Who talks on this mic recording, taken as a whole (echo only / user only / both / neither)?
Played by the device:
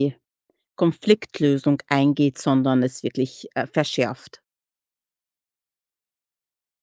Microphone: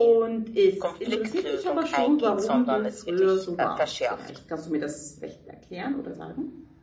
both